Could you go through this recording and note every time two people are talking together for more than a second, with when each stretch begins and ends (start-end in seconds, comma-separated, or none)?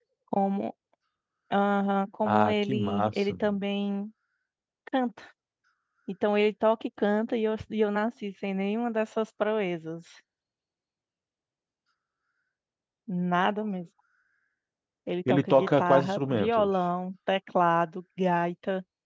2.2-3.5, 15.3-16.7